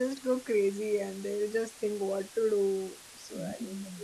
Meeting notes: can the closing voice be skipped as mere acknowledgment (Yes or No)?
No